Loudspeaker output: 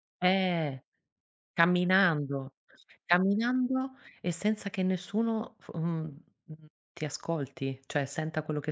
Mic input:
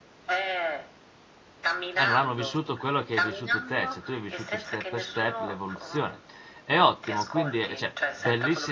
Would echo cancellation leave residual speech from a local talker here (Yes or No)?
Yes